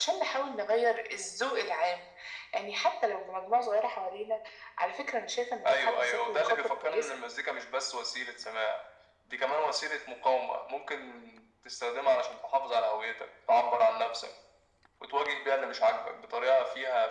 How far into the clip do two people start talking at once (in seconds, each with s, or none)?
5.7 s